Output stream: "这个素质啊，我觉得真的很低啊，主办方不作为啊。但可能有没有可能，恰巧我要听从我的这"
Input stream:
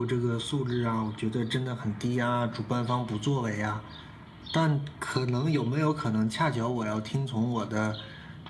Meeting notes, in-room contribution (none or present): none